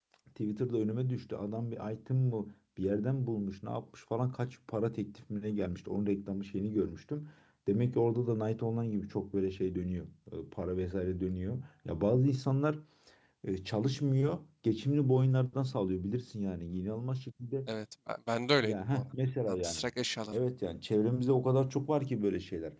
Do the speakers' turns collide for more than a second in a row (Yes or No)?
No